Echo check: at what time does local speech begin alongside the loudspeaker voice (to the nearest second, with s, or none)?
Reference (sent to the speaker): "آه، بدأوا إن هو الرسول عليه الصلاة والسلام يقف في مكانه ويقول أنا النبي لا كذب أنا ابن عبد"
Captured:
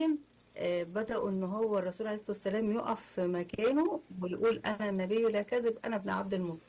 none